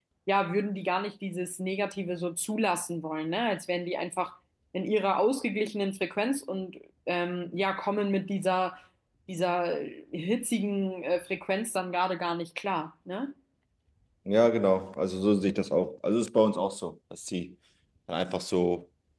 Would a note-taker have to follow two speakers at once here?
No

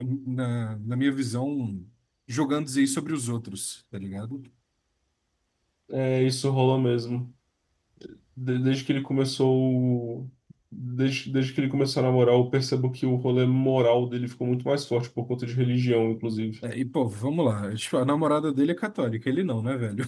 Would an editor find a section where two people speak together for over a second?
No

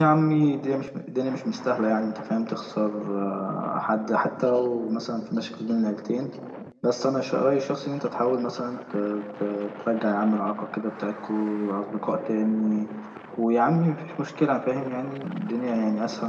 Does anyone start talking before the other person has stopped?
No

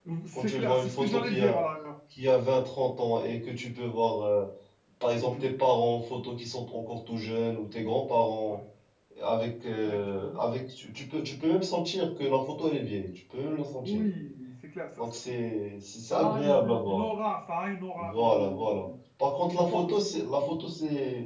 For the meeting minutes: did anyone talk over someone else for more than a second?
Yes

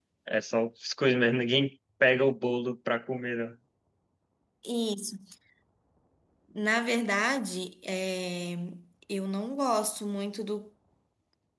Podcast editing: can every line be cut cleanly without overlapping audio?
Yes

